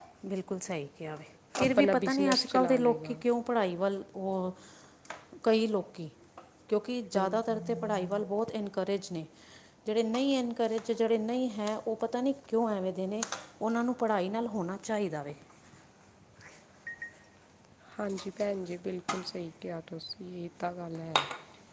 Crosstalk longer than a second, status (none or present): present